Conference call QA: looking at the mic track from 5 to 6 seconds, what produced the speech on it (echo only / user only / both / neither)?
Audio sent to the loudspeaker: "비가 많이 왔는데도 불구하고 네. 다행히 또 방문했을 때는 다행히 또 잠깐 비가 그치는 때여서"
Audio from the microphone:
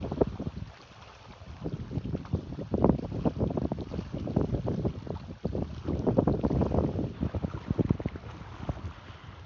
neither